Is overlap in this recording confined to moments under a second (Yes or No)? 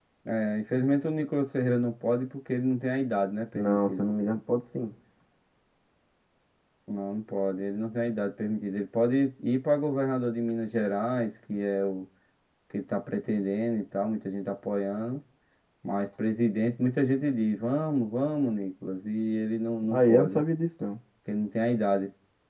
Yes